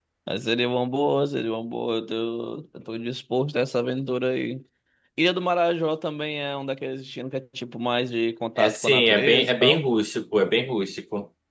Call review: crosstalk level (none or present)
present